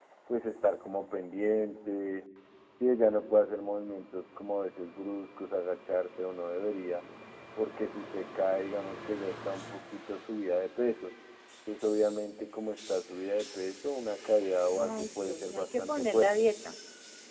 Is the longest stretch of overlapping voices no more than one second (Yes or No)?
No